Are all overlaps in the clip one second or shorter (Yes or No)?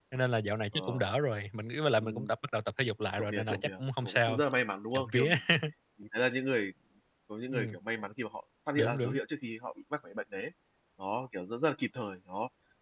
No